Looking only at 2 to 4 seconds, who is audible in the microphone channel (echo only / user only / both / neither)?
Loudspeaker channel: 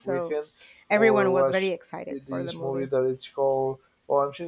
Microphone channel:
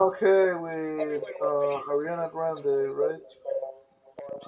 both